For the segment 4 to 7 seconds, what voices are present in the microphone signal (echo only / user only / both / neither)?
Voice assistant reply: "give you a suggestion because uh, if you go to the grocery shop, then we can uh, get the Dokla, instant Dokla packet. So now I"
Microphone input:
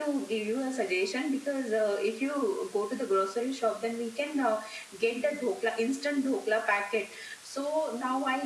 echo only